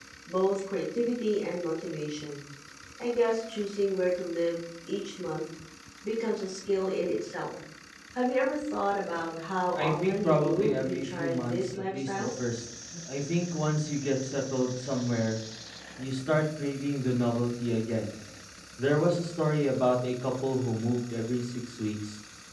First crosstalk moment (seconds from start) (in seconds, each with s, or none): 9.8 s